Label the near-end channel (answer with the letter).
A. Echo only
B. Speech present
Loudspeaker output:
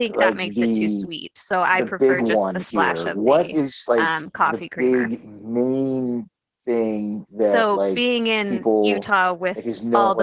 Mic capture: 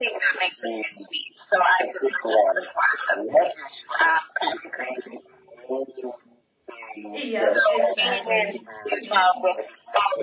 B